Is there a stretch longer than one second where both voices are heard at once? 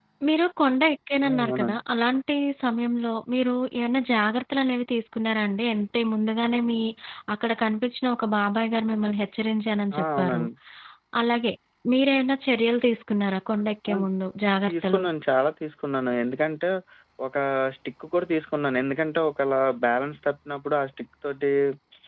No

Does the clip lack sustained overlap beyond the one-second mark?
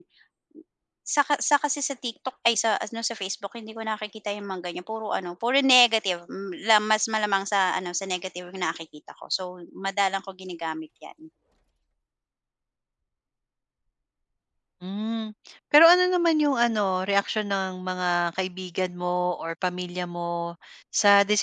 Yes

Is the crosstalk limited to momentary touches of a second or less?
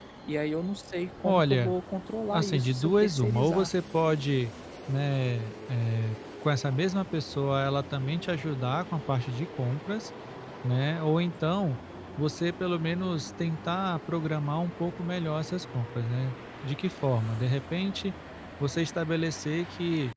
No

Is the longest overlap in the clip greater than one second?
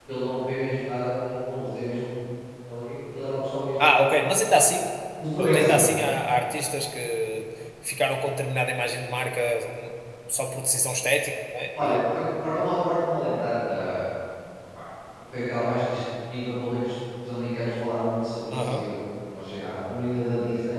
No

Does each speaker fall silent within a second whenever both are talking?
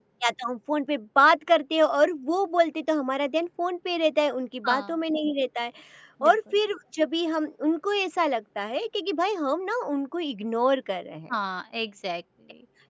Yes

